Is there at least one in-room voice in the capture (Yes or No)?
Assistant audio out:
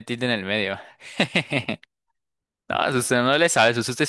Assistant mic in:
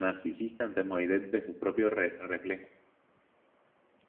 Yes